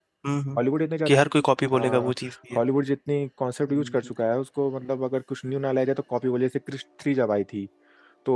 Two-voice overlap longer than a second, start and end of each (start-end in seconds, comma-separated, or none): none